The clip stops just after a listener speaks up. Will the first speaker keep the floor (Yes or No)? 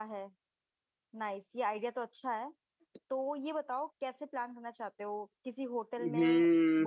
No